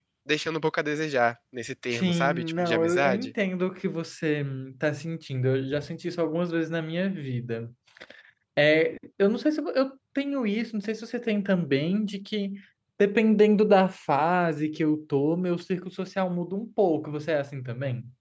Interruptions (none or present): present